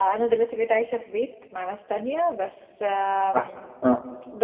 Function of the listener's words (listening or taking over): listening